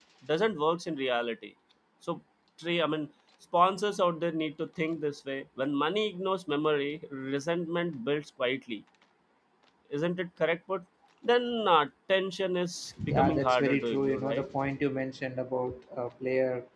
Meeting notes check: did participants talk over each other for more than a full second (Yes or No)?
Yes